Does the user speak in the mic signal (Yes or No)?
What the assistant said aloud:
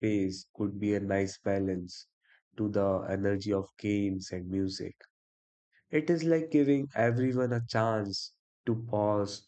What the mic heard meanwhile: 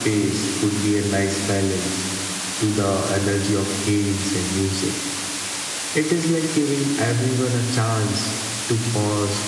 No